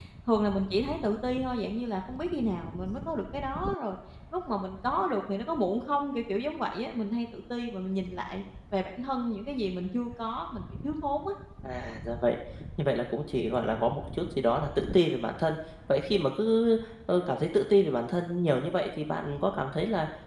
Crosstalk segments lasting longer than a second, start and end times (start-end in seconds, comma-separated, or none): none